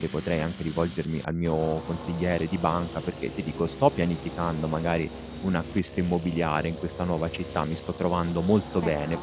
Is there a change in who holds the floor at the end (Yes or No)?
No